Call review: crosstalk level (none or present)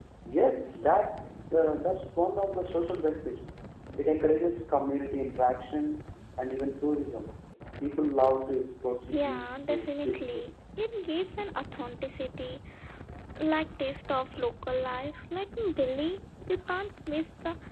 present